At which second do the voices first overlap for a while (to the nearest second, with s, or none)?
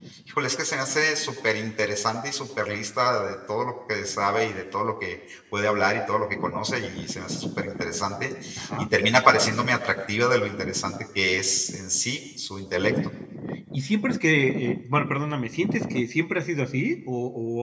none